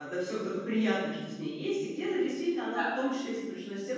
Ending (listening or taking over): listening